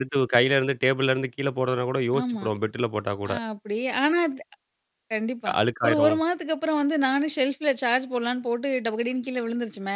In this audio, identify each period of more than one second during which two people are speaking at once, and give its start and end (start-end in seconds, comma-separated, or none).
none